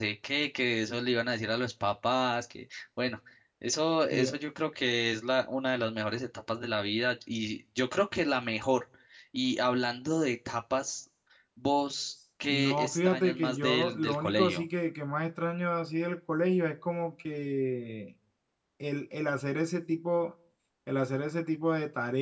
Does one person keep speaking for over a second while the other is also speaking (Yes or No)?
Yes